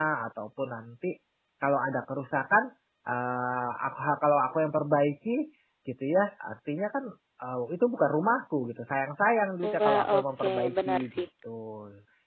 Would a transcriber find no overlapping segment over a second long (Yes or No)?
No